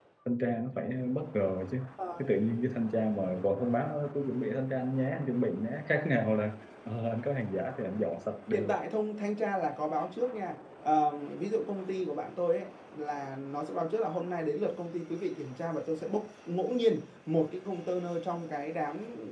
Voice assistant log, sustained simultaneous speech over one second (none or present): none